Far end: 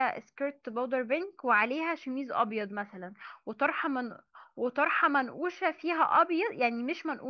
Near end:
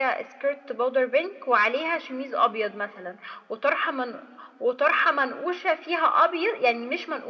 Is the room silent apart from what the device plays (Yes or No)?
Yes